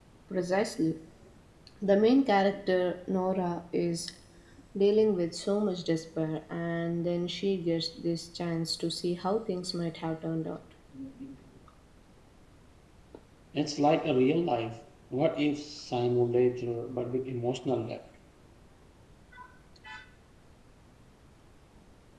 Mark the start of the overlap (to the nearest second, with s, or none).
none